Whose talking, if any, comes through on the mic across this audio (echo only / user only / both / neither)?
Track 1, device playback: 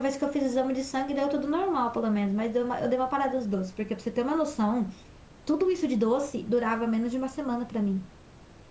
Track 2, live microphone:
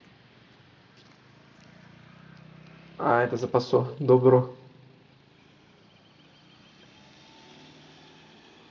user only